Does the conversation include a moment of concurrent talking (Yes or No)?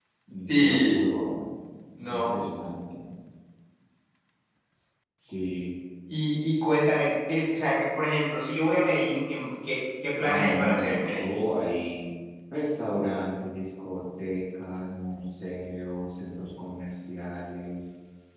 Yes